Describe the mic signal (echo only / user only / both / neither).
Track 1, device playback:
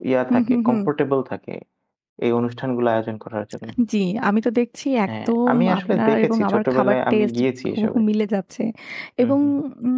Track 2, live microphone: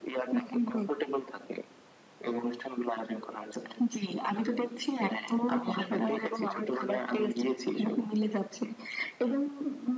echo only